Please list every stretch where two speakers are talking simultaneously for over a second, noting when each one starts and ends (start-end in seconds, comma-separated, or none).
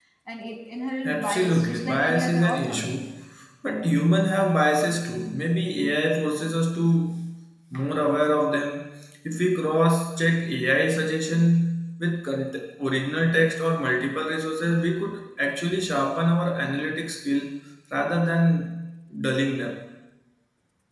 1.0-2.8